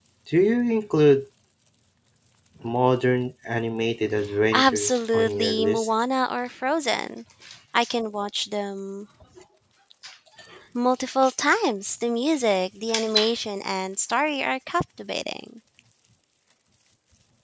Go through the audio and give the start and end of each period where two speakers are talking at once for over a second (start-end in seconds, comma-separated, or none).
4.5-5.9